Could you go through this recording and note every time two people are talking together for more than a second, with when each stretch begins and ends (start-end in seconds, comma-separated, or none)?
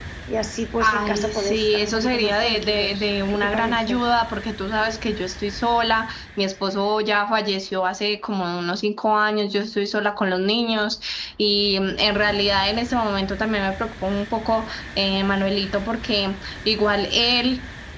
0.8-4.0